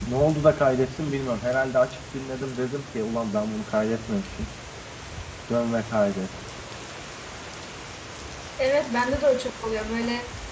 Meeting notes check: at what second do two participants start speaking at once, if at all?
none

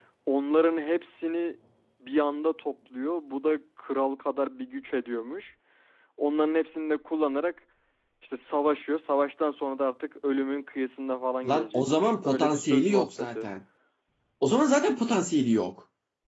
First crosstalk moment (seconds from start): 11 s

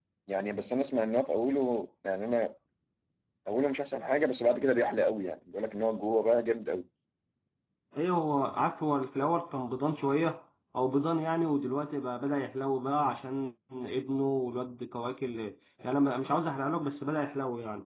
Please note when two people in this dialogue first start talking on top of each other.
none

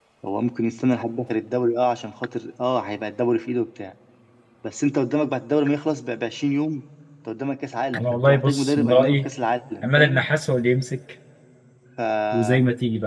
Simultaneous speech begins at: 8 s

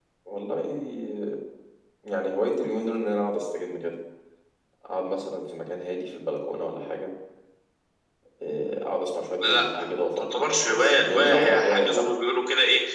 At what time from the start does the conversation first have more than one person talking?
9 s

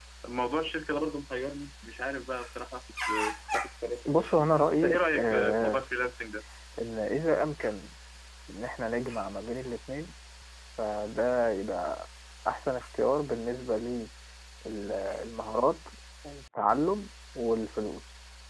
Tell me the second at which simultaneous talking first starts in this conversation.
4 s

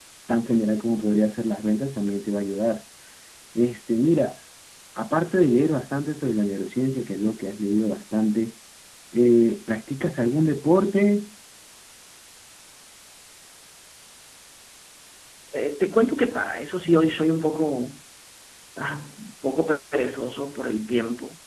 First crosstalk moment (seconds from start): none

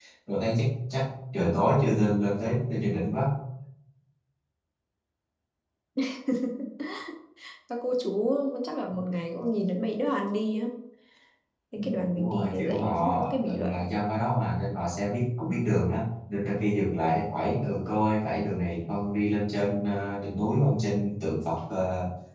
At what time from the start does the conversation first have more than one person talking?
12 s

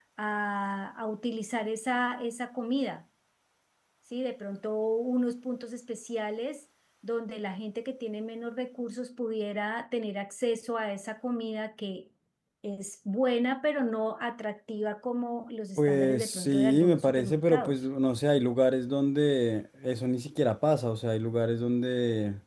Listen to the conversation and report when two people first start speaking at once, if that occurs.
16 s

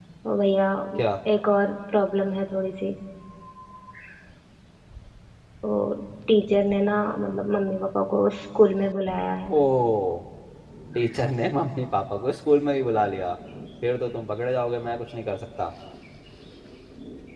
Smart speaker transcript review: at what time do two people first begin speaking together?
none

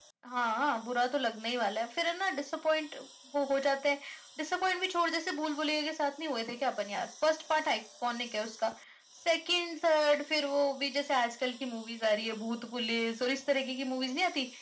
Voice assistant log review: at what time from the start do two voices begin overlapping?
none

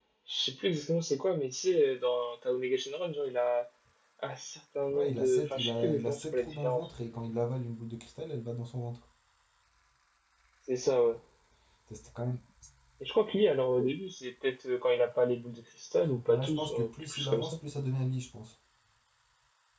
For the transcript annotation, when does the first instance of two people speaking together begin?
5 s

